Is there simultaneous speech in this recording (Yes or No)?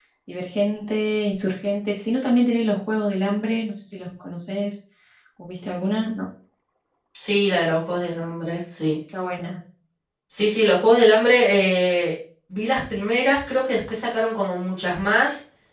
No